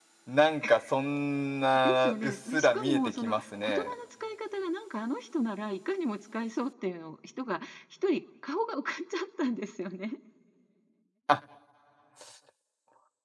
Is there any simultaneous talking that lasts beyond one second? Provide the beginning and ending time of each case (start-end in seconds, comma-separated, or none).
1.7-3.9